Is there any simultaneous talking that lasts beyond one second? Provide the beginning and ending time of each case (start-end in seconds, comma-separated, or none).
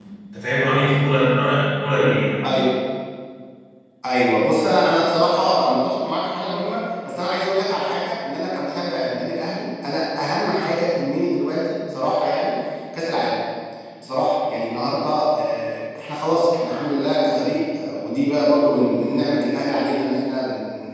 none